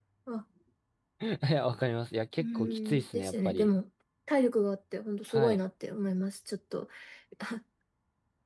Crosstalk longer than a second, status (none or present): present